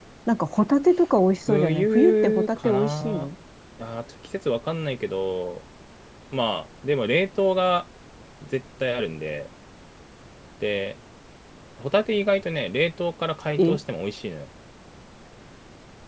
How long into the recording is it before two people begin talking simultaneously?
1.5 s

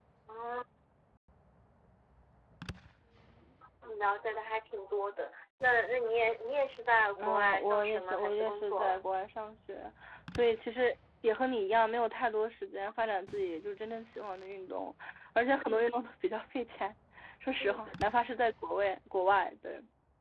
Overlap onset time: 7.2 s

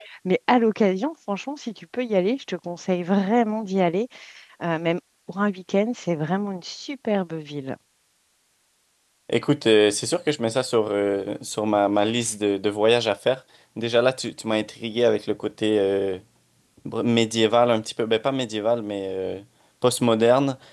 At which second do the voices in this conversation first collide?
none

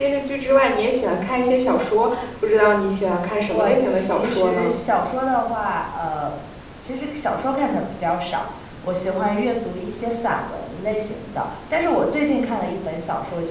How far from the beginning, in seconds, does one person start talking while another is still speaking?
3.4 s

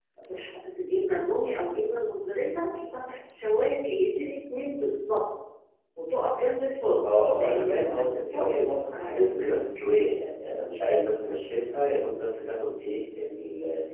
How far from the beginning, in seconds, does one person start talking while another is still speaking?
7.0 s

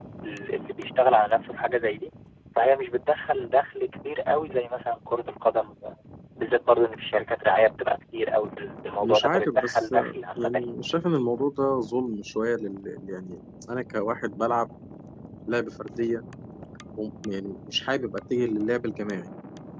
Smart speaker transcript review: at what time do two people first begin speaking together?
9.0 s

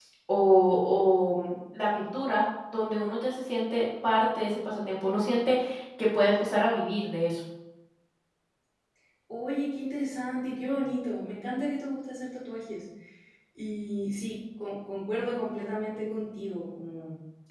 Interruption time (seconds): none

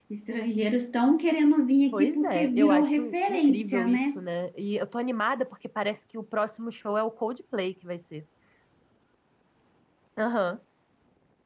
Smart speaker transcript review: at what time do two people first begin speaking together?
1.9 s

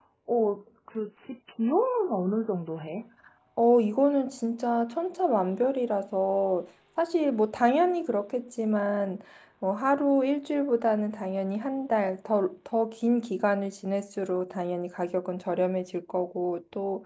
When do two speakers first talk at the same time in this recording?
none

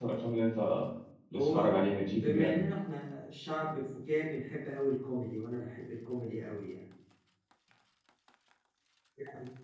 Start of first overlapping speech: 1.4 s

